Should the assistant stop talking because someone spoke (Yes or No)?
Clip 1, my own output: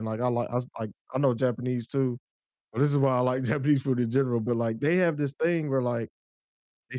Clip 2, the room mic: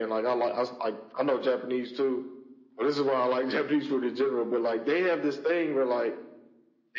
No